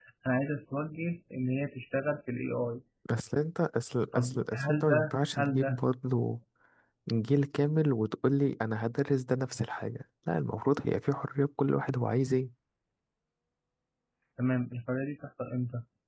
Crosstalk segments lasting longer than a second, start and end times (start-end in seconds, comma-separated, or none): 4.1-5.8